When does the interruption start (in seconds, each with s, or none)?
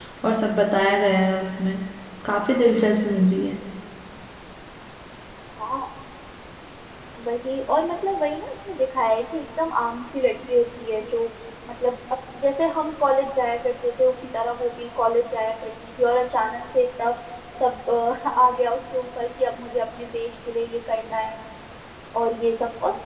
none